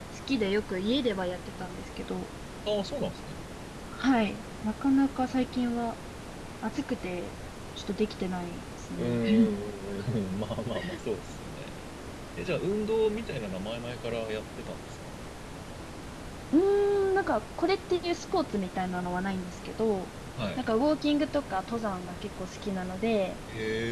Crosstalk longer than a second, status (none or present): none